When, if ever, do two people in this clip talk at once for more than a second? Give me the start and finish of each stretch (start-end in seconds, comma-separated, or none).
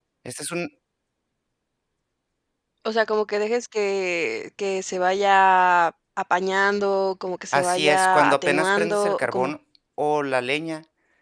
7.5-9.5